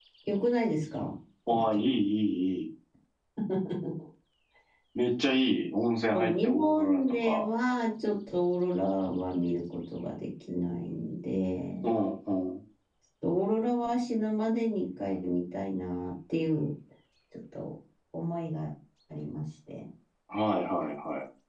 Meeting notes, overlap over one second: present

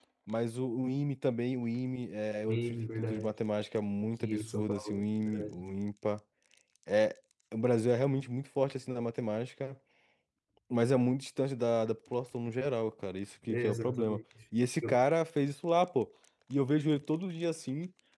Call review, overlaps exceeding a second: present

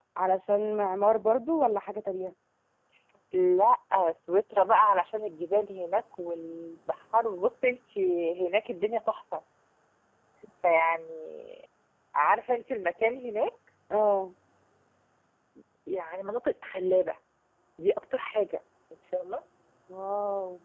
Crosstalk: none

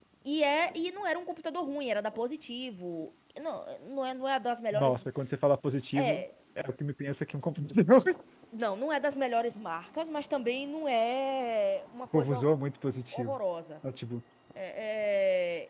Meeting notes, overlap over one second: none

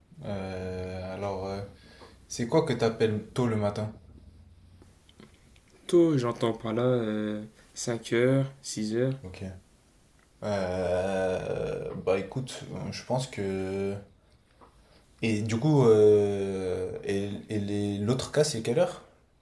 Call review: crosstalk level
none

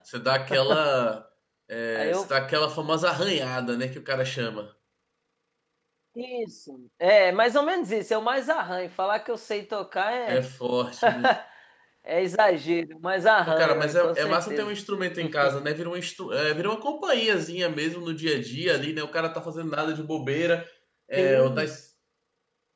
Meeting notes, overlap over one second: present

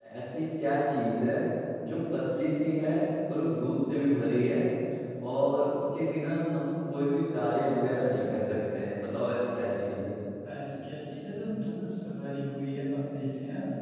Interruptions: none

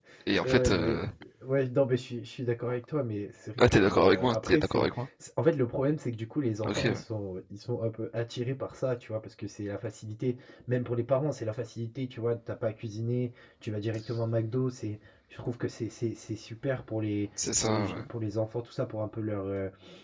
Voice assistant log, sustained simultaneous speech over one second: present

